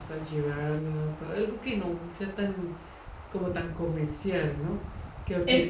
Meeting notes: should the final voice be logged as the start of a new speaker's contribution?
Yes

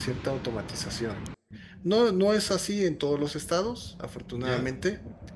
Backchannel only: Yes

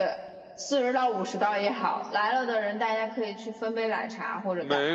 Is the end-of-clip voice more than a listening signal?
Yes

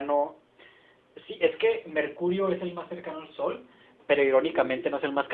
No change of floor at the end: Yes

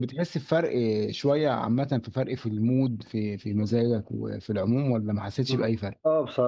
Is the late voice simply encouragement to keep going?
No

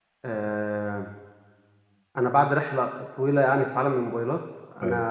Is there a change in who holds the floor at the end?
No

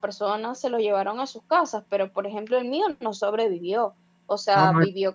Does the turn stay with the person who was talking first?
Yes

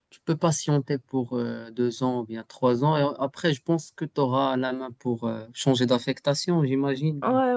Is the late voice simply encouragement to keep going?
No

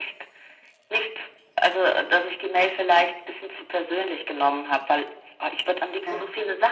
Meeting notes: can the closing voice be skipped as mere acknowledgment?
Yes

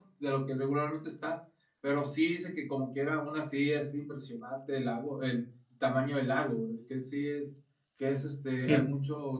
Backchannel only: Yes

